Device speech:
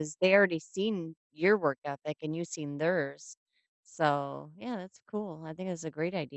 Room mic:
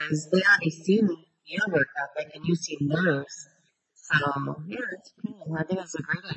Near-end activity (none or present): none